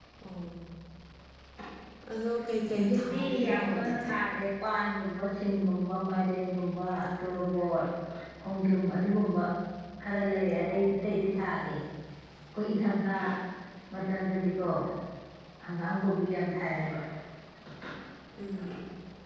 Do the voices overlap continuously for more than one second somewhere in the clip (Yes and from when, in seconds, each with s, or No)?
Yes, from 2.8 s